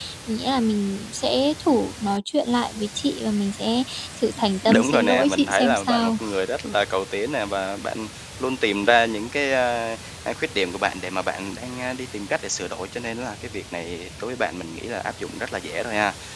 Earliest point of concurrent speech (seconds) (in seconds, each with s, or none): 4.7 s